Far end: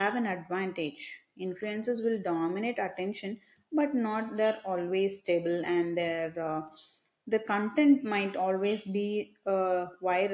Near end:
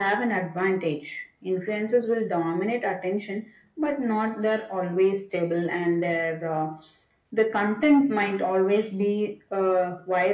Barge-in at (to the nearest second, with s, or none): none